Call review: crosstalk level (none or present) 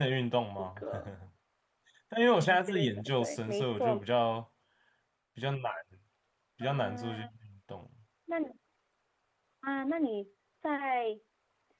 present